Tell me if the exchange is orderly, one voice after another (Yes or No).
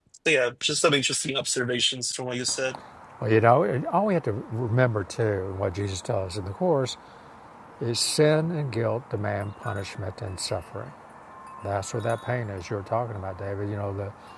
Yes